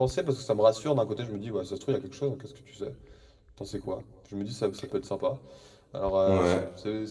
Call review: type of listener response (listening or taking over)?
listening